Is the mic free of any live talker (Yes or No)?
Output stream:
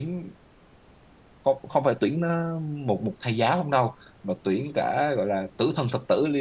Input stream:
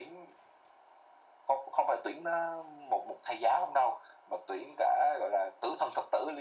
Yes